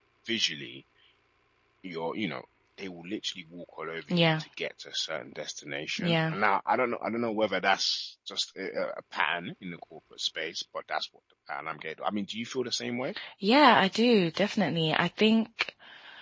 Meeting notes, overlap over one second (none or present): none